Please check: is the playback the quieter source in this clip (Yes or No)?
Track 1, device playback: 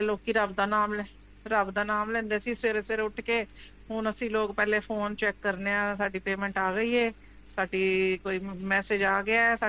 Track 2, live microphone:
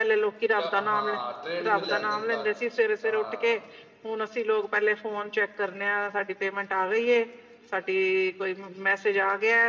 No